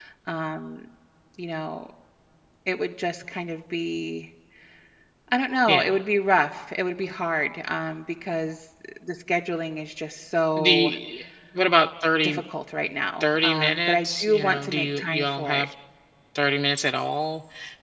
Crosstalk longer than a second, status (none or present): present